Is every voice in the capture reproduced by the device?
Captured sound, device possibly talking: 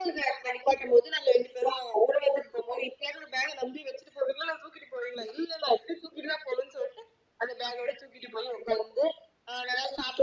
Yes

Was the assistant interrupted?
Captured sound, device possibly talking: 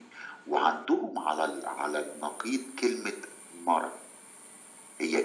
No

